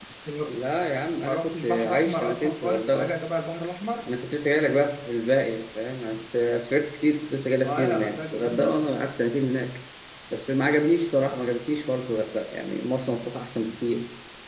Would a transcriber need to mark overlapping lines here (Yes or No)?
Yes